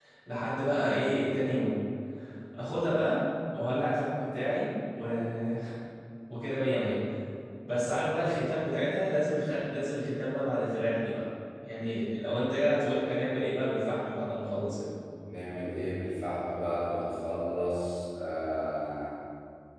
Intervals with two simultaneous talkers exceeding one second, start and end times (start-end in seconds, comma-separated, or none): none